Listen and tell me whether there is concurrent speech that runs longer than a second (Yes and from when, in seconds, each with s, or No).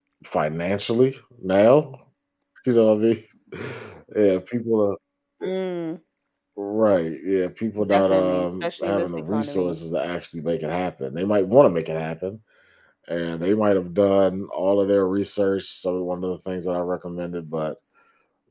Yes, from 7.8 s